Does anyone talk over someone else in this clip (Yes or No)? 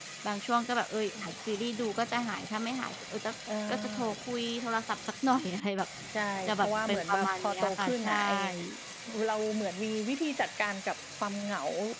Yes